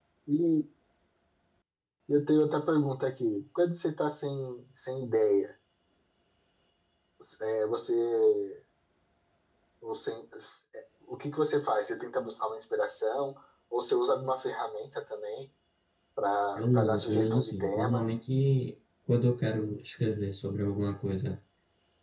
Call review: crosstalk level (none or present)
present